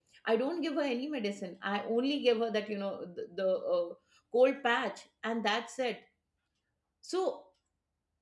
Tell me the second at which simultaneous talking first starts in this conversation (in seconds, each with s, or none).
none